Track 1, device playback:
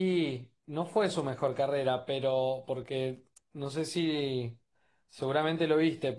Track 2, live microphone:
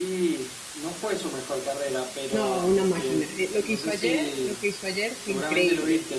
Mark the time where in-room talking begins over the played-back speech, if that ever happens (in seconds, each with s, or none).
2.3 s